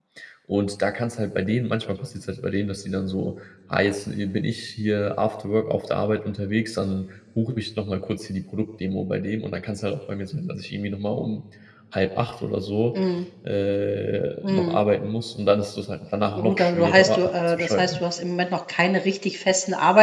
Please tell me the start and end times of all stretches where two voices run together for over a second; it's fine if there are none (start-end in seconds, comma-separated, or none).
16.3-18.0